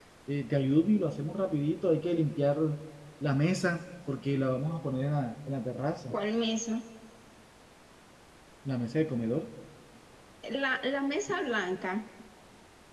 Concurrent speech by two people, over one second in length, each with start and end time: none

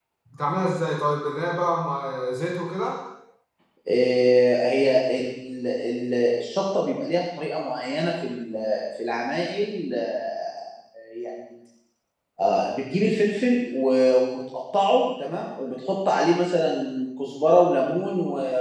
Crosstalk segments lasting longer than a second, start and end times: none

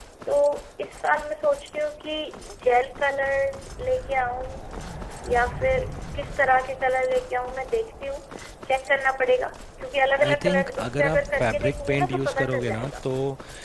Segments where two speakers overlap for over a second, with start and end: 10.2-12.9

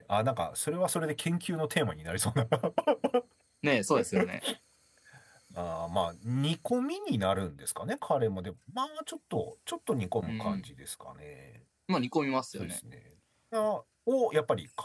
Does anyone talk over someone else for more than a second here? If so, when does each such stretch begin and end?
none

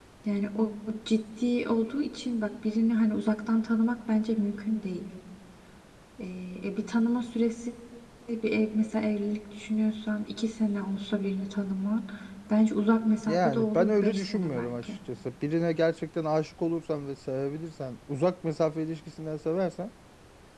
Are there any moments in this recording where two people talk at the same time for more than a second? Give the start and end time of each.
13.2-14.9

